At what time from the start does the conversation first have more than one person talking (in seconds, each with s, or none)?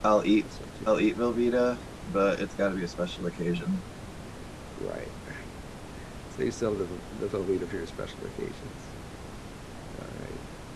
none